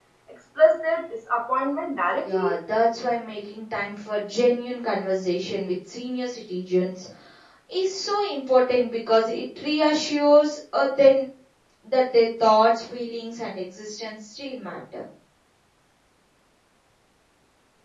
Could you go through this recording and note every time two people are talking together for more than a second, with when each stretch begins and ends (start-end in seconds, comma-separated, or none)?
none